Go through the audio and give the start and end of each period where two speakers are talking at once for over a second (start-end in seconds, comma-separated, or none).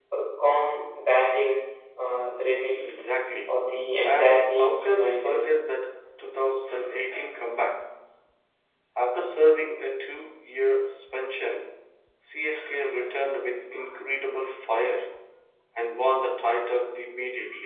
4.0-5.4